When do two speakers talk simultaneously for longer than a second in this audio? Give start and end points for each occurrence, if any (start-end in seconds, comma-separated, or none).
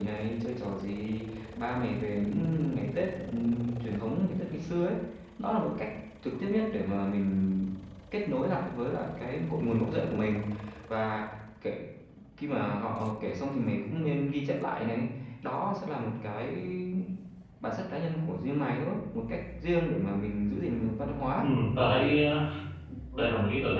none